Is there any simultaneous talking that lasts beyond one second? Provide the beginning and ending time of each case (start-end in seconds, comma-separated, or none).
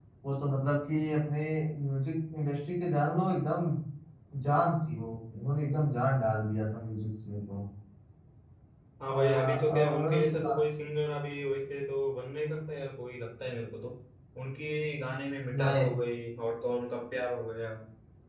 9.1-10.6